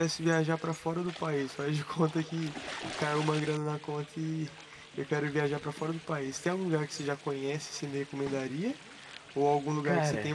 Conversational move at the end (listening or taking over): listening